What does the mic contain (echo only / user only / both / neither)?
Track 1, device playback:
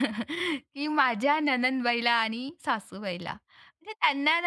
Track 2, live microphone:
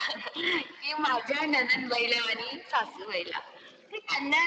echo only